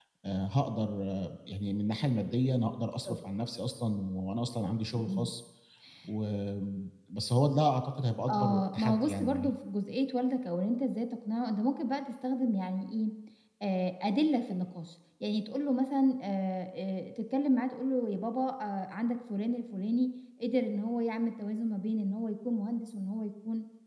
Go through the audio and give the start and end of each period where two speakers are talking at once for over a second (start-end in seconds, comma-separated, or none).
8.3-9.5